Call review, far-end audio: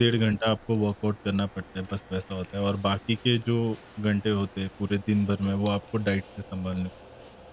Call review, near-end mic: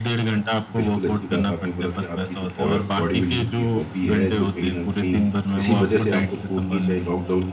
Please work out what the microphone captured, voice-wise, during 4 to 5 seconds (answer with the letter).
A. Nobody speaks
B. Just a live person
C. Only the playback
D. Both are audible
D